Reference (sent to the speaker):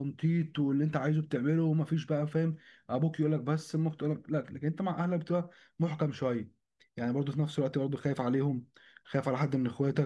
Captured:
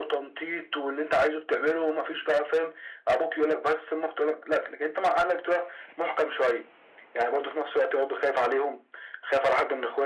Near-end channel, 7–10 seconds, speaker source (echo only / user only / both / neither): echo only